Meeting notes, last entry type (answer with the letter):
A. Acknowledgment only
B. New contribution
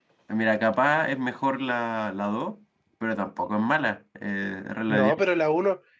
B